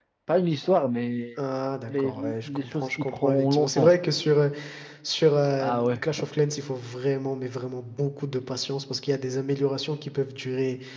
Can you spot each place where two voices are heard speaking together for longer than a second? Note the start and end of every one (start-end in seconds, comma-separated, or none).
1.9-3.9